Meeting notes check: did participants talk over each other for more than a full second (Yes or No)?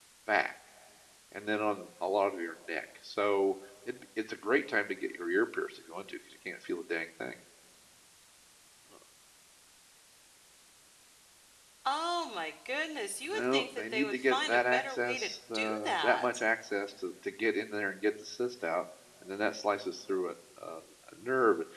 Yes